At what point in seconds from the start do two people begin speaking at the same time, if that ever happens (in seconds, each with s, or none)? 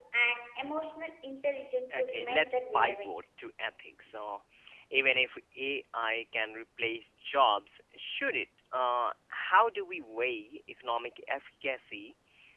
1.9 s